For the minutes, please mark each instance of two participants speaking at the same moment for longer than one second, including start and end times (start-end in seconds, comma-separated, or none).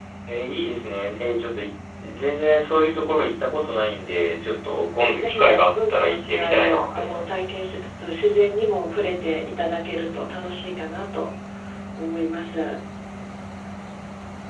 5.0-7.6